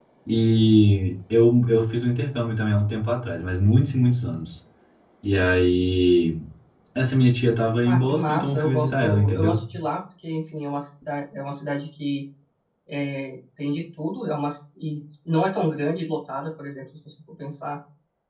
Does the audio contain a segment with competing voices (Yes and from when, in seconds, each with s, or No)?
Yes, from 7.8 s